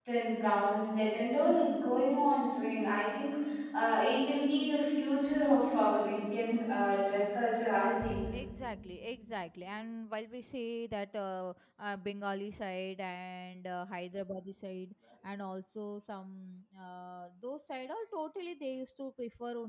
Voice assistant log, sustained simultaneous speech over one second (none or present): none